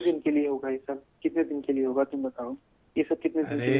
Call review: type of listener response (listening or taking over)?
listening